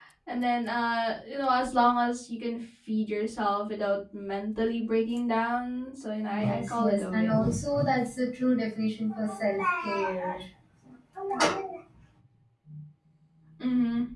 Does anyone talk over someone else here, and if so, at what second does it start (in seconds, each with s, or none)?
6.3 s